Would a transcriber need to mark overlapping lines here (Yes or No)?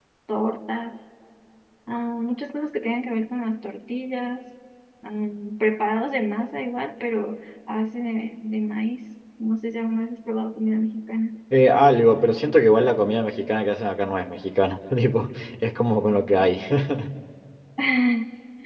No